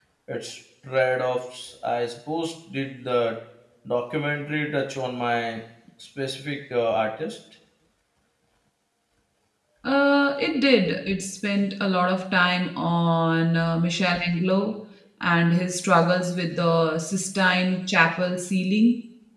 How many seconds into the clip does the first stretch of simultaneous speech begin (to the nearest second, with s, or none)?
none